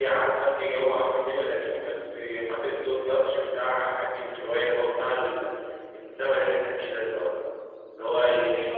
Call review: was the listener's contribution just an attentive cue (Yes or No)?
Yes